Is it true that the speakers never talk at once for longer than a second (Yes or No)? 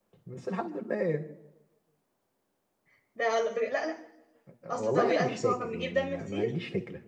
No